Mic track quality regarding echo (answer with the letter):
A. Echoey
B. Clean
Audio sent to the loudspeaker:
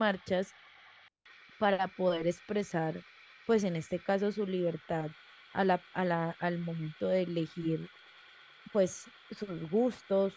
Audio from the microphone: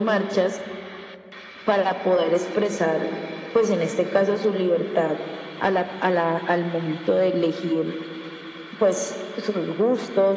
A